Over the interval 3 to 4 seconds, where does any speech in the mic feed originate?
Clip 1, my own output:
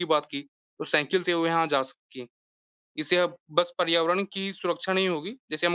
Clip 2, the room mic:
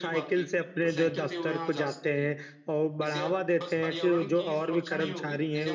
both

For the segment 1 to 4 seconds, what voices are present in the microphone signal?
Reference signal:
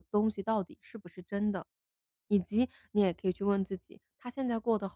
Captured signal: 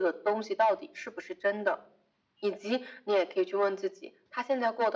echo only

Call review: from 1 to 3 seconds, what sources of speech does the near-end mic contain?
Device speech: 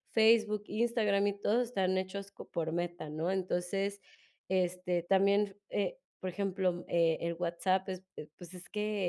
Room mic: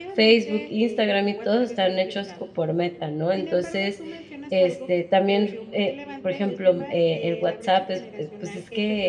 both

